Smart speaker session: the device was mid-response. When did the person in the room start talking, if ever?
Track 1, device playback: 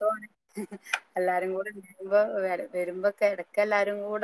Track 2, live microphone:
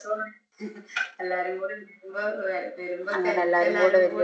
3.1 s

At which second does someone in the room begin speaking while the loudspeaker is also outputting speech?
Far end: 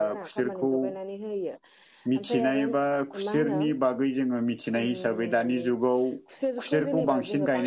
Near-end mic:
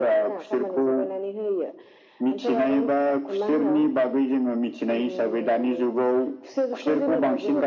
none

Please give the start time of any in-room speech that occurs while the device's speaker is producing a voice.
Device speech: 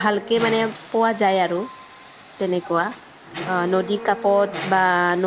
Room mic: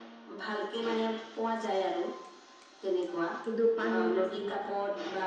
3.4 s

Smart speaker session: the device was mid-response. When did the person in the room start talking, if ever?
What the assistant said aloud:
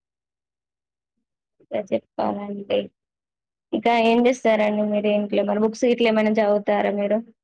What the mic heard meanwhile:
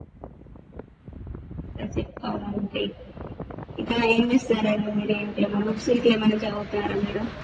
none

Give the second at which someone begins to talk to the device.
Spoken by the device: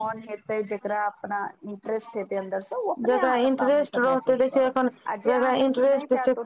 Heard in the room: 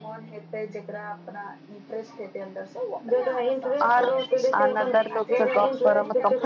3.9 s

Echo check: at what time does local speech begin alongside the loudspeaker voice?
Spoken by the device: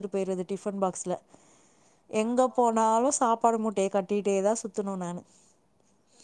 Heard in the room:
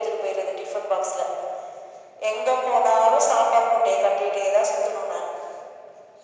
none

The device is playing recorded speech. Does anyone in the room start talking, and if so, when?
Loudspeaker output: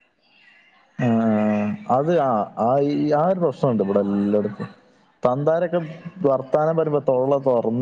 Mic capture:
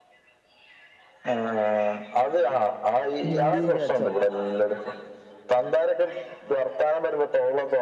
3.3 s

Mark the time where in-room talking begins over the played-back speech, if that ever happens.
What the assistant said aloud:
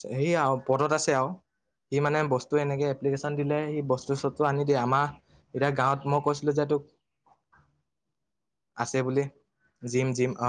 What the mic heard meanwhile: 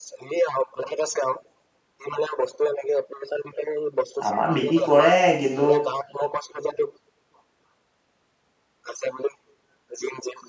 4.3 s

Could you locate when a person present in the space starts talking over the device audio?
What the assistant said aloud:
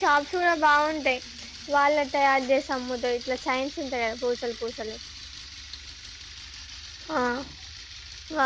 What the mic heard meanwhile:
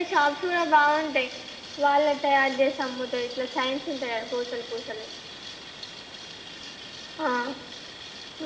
none

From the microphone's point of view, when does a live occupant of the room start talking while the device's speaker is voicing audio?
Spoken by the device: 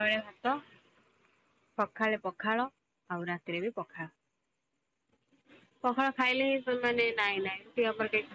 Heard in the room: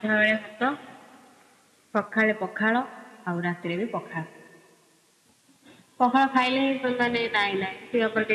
none

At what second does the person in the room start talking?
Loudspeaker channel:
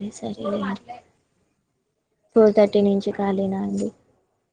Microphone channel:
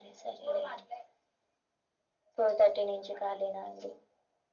none

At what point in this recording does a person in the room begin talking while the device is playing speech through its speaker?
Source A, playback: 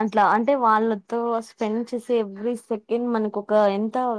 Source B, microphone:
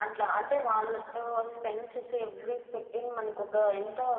none

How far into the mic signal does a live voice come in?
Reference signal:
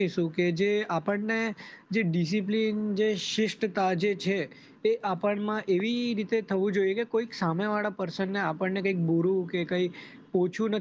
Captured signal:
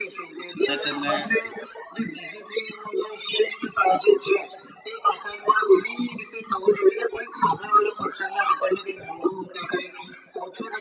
0.6 s

